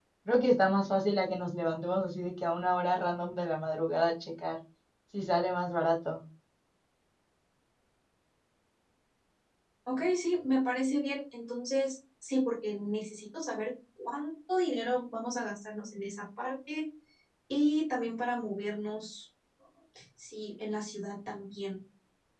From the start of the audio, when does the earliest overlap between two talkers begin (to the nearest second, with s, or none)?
none